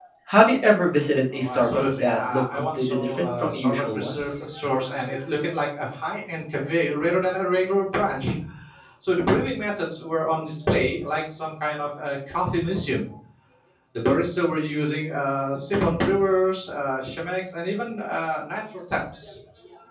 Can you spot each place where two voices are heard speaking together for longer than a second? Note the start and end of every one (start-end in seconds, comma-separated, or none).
1.4-4.3